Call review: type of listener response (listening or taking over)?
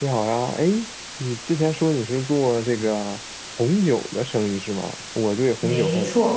listening